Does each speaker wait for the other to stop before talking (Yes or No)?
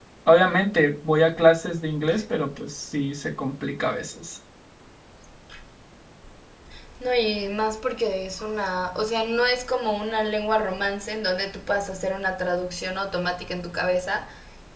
Yes